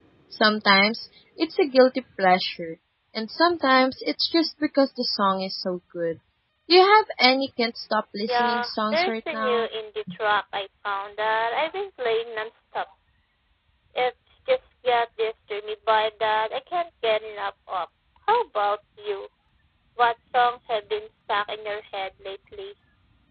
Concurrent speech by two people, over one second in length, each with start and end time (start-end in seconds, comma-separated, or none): 8.3-9.7